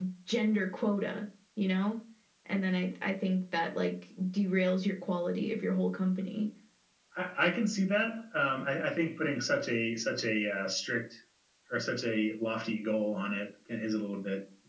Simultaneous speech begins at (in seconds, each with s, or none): none